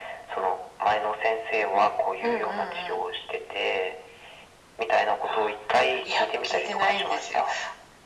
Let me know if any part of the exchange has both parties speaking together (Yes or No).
Yes